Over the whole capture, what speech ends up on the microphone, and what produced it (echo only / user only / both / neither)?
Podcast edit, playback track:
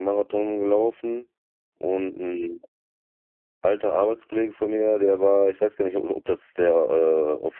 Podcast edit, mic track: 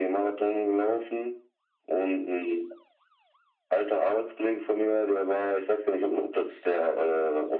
echo only